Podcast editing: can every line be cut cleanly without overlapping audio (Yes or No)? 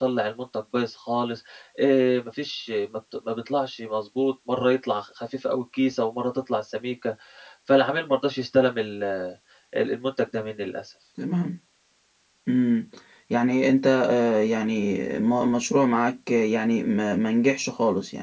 Yes